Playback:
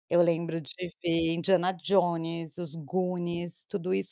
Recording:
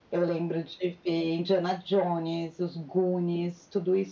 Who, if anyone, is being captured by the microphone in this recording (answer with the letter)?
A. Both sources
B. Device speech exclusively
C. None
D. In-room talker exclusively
B